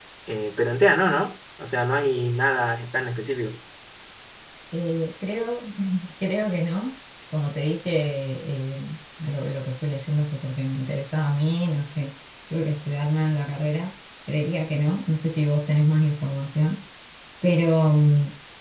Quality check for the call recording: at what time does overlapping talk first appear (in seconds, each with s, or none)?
none